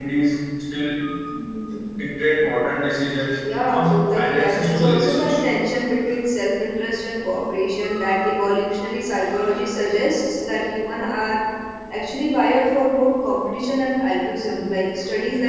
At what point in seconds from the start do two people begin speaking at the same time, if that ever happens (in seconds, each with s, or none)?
3.3 s